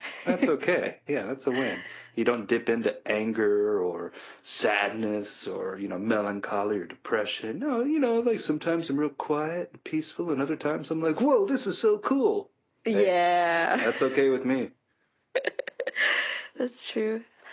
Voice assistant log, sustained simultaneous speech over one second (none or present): none